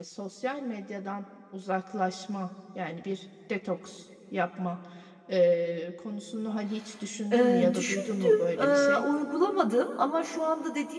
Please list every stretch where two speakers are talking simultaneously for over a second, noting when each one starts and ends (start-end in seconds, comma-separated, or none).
7.3-9.0